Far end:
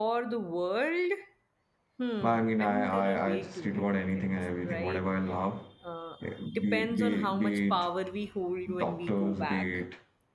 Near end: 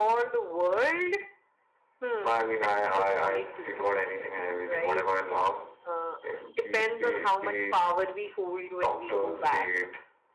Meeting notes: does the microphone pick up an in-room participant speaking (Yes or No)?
No